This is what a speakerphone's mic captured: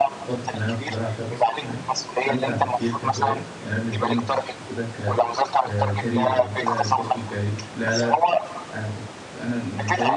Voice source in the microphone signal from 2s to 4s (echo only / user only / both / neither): both